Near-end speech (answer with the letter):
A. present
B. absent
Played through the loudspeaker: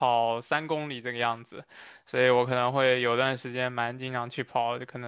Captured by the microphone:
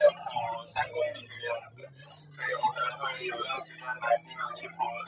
B